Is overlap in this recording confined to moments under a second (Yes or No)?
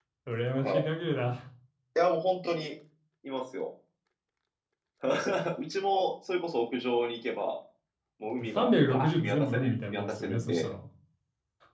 No